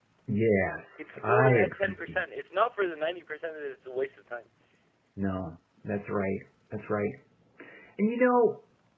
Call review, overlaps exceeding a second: present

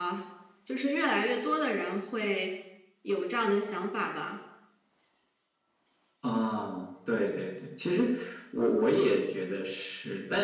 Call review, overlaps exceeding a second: none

